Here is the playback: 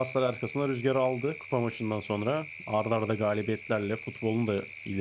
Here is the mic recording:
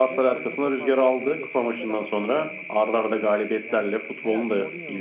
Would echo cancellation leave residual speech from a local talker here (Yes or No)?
Yes